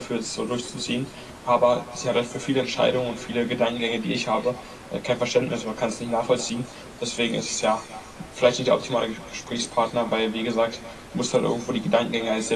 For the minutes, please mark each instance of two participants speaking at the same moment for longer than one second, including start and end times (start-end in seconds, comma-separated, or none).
none